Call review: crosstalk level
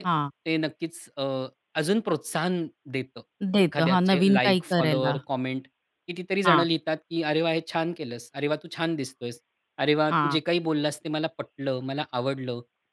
present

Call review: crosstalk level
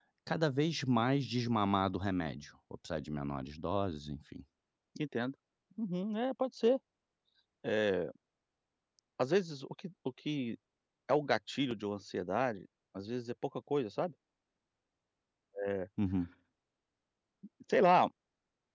none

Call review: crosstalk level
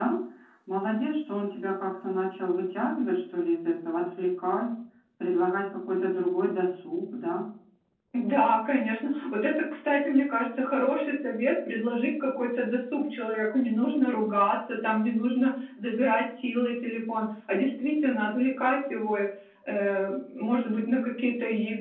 none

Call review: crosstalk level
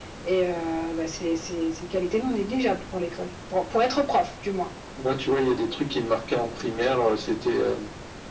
none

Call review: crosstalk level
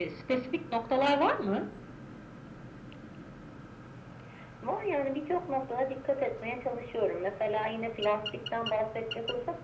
none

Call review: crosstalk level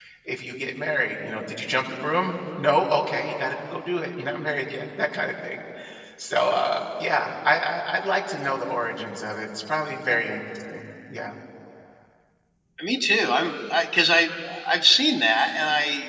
none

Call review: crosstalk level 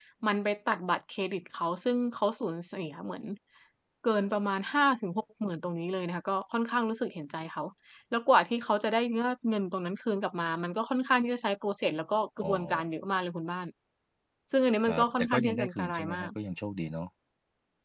present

